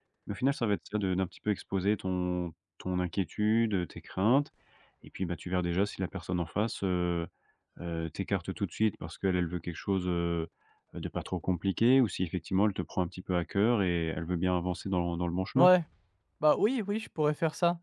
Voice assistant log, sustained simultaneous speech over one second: none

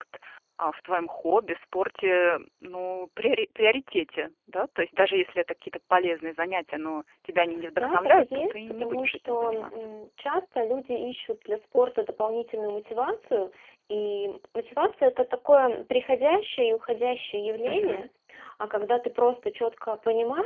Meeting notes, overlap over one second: present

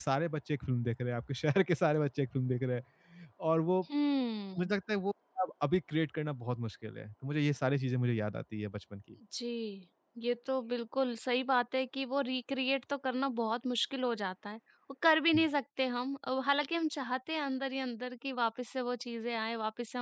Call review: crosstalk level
none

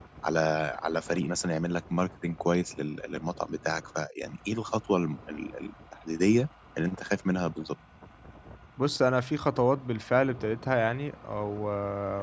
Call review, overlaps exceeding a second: none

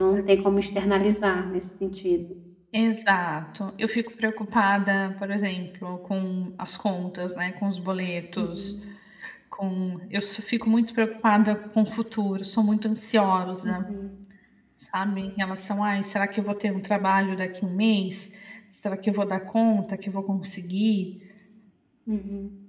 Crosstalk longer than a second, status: none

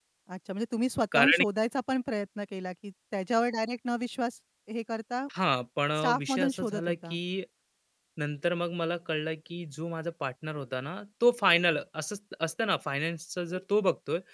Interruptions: present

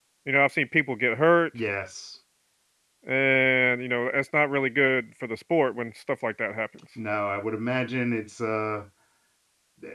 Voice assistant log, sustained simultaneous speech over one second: none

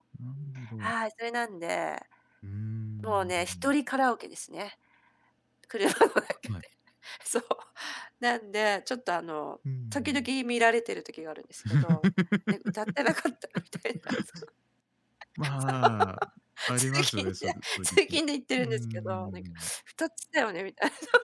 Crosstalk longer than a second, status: present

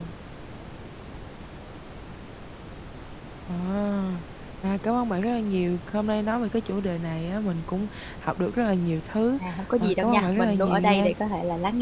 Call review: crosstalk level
present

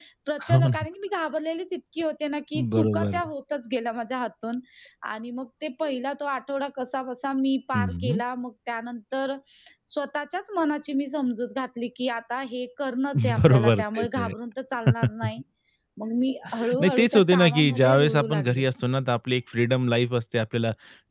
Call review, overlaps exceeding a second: present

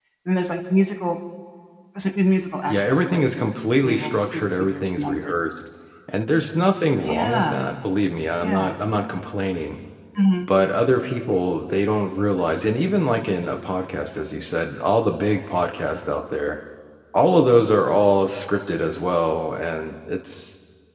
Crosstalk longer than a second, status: present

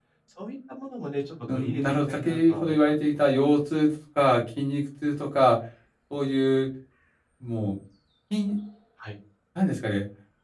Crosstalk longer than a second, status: present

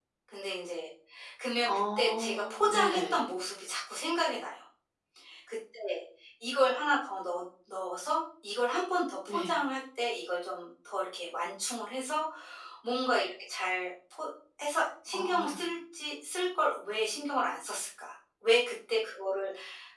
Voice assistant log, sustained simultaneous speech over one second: present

